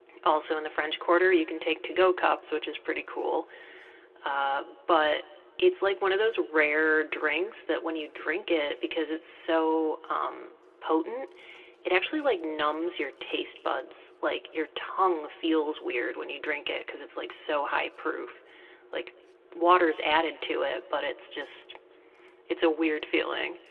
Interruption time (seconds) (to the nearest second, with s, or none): none